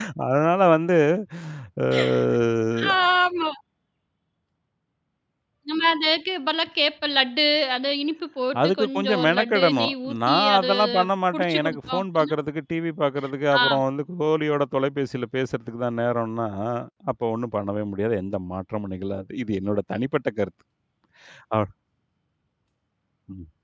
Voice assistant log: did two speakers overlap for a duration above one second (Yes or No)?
Yes